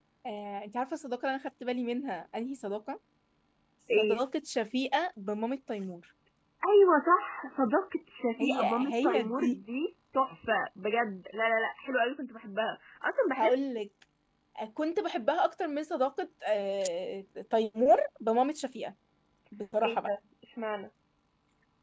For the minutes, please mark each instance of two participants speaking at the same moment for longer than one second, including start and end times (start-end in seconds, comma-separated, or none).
8.4-9.6